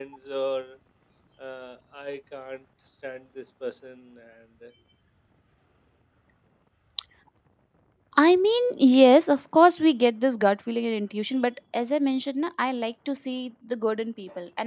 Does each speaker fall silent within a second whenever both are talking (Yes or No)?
Yes